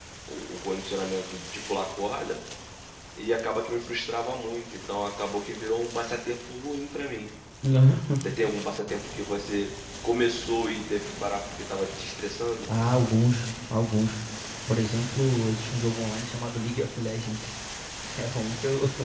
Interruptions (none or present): none